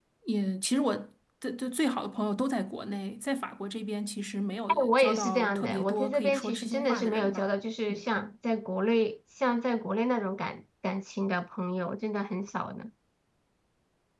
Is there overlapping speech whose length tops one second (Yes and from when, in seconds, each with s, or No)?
Yes, from 4.7 s